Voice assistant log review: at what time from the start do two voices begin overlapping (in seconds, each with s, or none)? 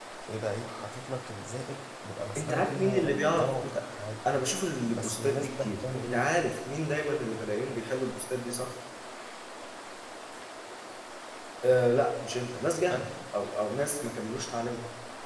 2.4 s